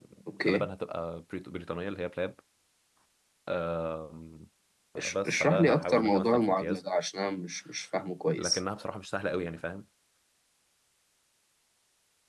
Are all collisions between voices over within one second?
No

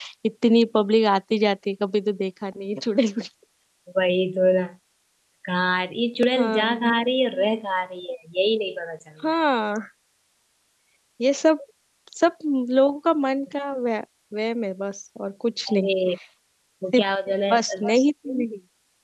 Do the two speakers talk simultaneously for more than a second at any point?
No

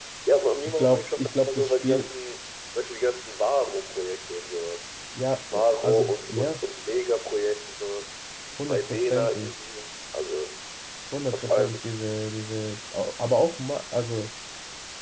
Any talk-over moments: Yes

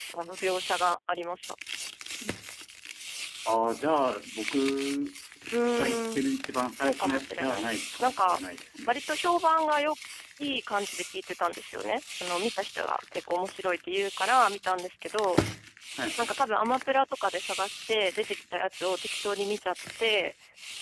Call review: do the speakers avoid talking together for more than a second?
No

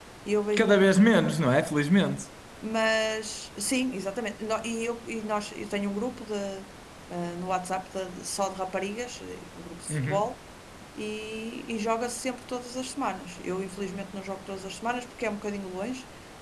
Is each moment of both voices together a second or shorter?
Yes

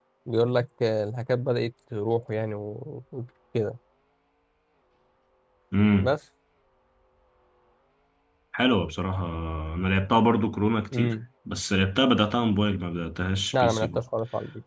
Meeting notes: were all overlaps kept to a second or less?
Yes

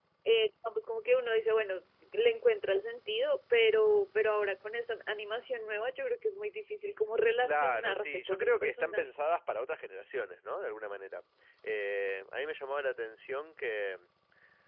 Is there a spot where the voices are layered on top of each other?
Yes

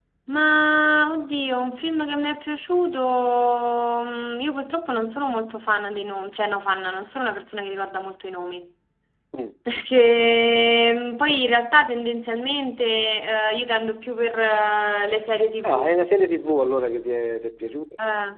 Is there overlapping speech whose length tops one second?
No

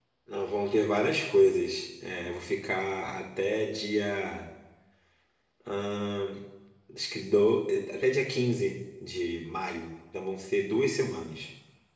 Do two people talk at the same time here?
No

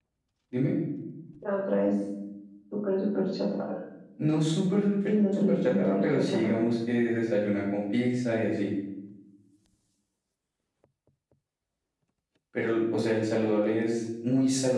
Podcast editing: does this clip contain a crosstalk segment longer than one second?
Yes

